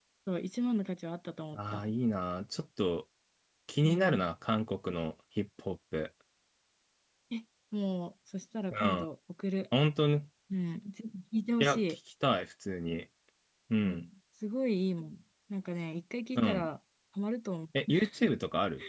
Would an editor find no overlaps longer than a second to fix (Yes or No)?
Yes